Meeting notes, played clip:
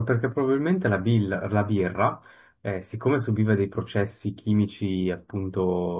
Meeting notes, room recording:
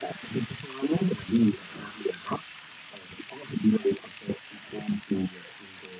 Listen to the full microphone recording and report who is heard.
echo only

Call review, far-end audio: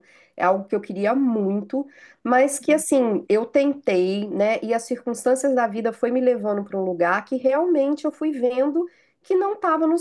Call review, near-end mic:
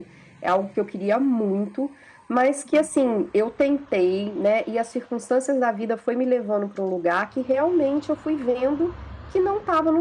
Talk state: echo only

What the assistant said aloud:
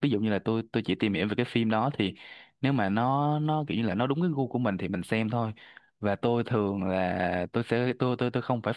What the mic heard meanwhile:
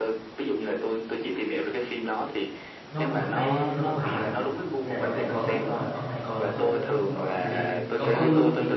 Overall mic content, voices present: both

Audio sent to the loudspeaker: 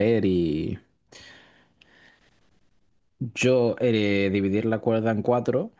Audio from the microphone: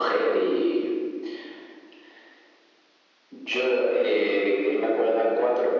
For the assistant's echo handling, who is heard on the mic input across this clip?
echo only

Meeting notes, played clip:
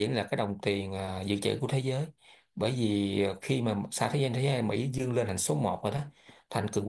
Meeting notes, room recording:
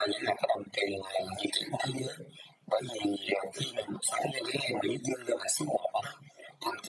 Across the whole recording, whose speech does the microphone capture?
echo only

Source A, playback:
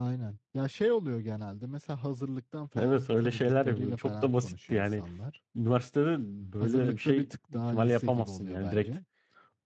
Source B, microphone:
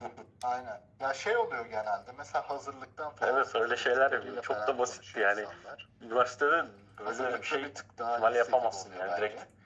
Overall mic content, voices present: echo only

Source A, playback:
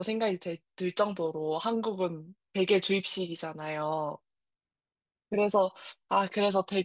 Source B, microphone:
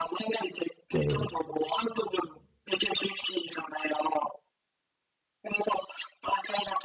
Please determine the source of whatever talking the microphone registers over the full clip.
both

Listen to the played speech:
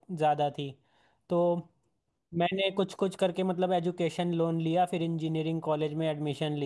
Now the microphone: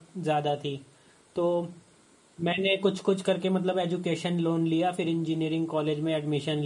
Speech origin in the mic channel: echo only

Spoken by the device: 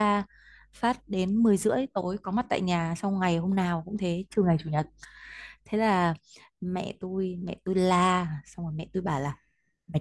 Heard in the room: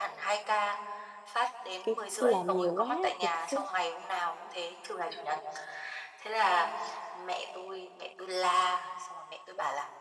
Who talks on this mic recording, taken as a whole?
both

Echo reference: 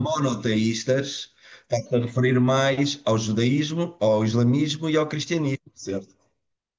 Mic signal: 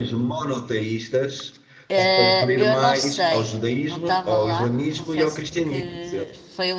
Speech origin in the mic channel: both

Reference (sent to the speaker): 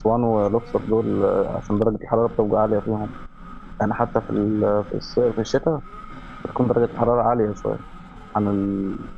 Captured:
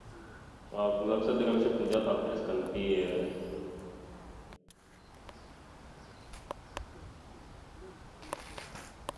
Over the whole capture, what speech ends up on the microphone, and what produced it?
user only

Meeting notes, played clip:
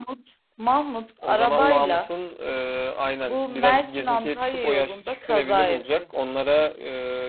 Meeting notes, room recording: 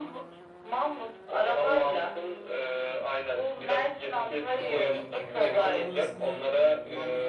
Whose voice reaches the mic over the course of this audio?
both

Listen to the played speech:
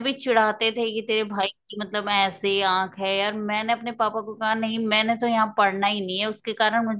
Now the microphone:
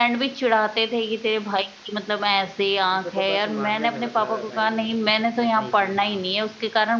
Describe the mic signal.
both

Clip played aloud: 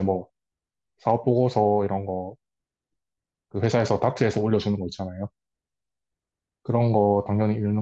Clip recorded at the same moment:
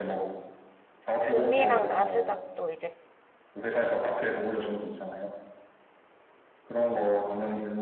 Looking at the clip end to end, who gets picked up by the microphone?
both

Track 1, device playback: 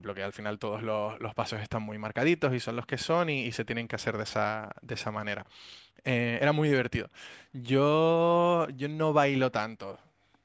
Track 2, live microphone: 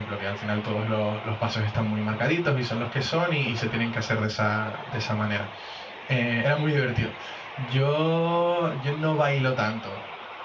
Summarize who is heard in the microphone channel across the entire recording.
echo only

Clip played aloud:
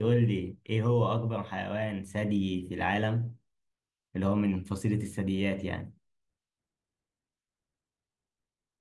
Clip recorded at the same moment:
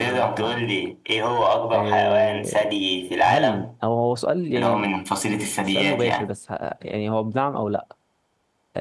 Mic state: both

